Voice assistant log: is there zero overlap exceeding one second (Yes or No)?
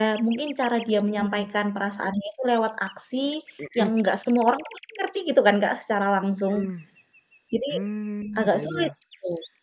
Yes